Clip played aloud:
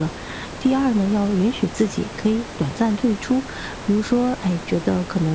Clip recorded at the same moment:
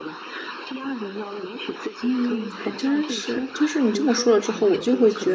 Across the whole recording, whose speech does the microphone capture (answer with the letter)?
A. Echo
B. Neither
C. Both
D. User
C